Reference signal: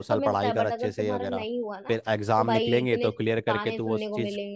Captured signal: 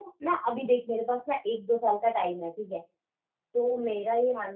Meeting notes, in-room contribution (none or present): present